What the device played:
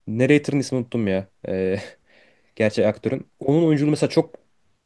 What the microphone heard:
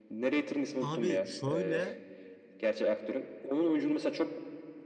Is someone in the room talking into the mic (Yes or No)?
Yes